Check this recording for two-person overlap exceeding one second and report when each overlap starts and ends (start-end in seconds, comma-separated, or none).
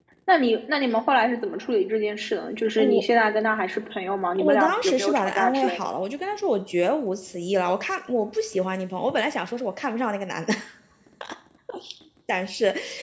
4.4-5.9